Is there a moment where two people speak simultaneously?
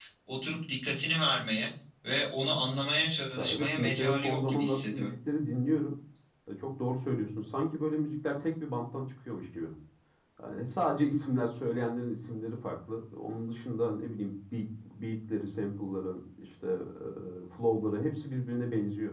Yes, from 3.4 s

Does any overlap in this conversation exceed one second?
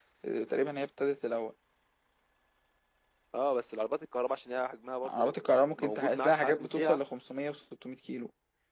Yes, from 5.0 s

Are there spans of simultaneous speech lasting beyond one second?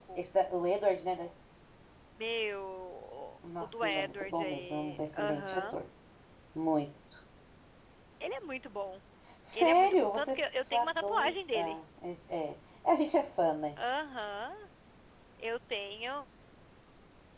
Yes, from 3.6 s

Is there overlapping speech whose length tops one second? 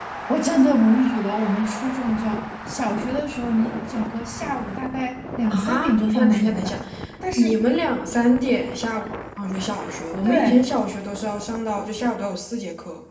Yes, from 5.5 s

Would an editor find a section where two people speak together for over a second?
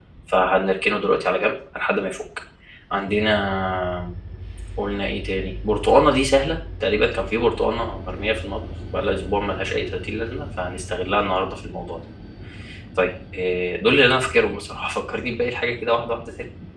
No

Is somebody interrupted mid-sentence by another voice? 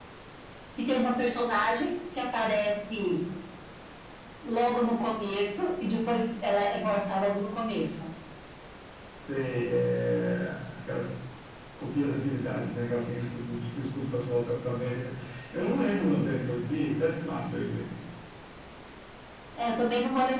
No

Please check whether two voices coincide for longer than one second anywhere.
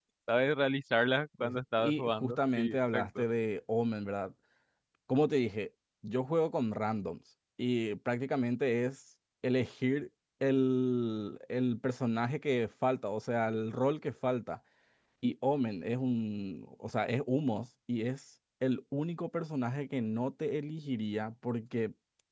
Yes, from 1.4 s

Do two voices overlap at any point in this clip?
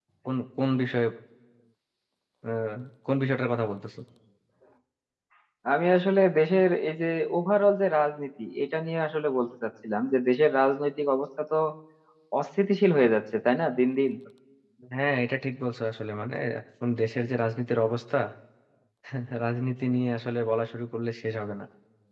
No

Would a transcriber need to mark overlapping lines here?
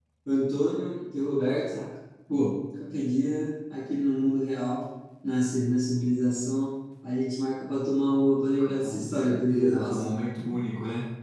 Yes, from 8.8 s

